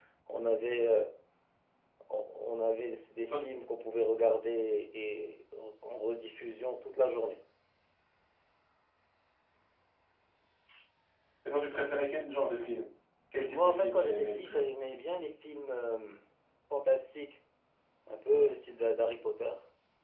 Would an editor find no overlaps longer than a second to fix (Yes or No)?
No